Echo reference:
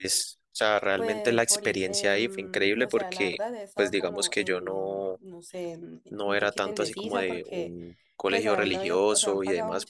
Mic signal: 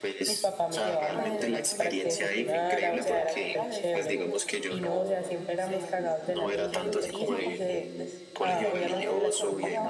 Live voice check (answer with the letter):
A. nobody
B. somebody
B